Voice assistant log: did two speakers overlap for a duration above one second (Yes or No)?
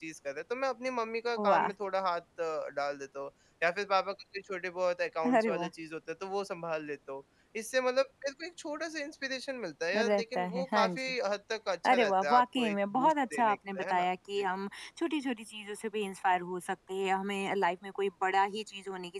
Yes